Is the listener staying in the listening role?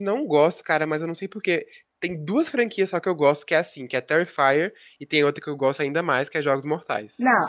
No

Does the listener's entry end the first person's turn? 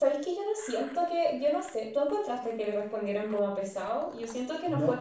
Yes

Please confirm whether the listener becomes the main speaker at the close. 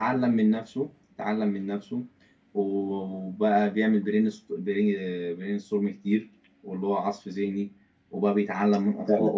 No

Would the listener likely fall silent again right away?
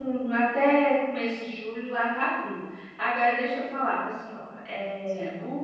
Yes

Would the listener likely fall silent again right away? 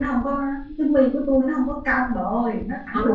No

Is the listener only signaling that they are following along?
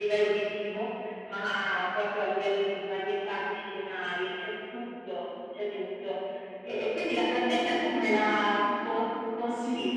No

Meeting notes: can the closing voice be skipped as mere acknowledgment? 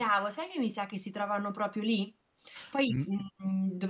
Yes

